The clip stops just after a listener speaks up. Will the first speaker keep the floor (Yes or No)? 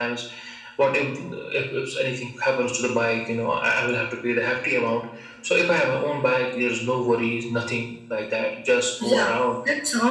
No